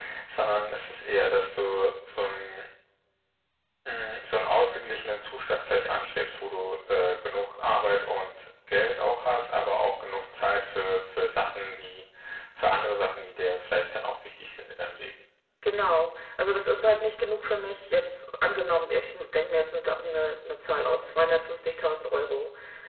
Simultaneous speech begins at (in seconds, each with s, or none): none